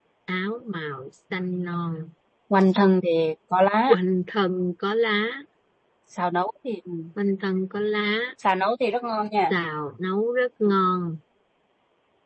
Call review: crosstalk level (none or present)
none